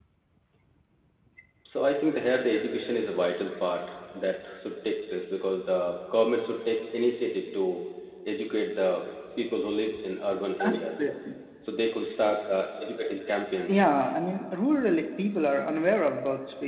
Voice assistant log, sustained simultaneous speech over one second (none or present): none